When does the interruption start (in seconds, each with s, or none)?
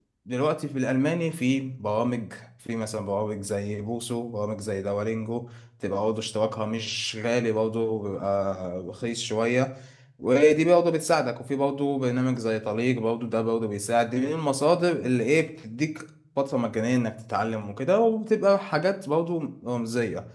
none